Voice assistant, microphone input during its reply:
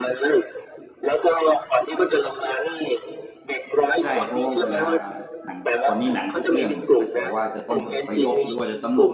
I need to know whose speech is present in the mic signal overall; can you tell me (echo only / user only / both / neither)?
both